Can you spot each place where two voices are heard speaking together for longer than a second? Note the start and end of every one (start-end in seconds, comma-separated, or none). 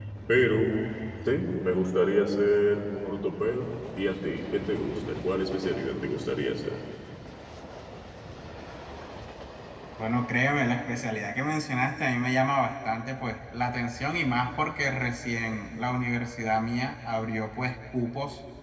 none